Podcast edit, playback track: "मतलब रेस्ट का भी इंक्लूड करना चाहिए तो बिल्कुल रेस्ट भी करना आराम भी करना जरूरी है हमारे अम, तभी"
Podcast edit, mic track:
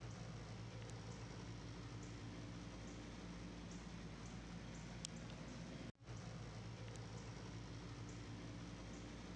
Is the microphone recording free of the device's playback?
Yes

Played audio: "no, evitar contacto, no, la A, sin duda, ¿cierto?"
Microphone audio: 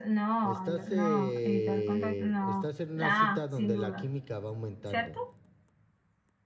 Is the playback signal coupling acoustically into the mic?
Yes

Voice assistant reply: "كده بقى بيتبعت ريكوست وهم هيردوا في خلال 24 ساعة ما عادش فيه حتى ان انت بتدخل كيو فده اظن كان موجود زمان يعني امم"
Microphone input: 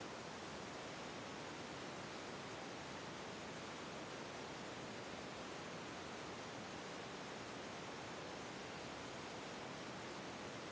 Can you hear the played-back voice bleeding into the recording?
No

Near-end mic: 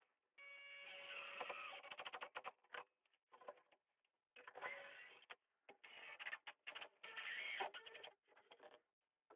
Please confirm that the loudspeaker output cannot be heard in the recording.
Yes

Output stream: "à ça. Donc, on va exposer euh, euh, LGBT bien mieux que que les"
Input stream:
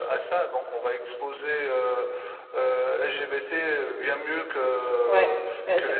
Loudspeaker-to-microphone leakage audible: Yes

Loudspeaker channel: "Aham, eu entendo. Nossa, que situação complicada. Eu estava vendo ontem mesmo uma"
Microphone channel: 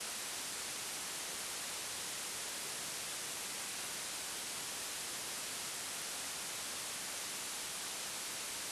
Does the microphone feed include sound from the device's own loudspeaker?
No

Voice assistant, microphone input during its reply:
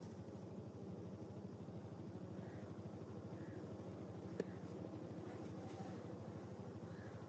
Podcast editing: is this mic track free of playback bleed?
Yes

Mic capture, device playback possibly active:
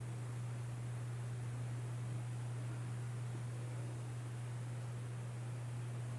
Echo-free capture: Yes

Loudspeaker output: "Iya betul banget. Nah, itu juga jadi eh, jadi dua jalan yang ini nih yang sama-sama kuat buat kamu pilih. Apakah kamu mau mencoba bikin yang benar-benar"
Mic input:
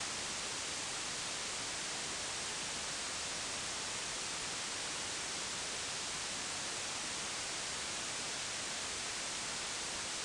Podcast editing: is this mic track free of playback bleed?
Yes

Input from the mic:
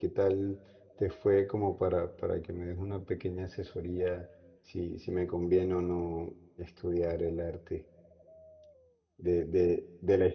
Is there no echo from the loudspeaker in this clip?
Yes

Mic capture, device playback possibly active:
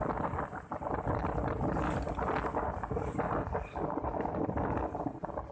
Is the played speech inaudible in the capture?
Yes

